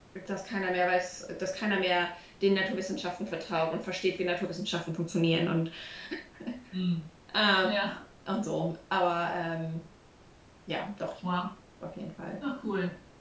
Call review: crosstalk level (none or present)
none